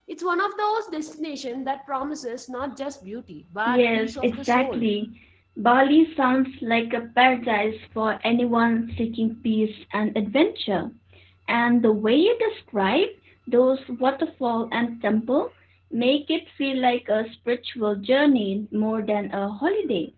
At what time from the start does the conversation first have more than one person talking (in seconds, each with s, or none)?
3.7 s